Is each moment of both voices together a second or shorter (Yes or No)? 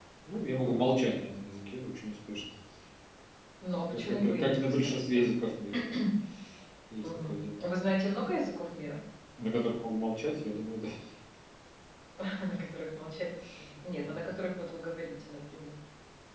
No